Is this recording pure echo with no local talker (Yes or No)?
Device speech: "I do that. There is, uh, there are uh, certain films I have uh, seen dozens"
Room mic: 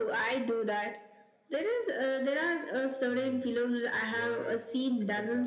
No